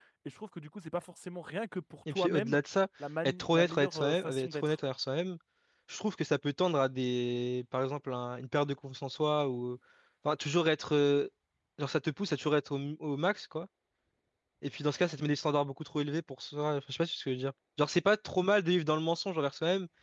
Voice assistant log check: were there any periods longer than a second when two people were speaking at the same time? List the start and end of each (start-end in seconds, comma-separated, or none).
3.4-4.8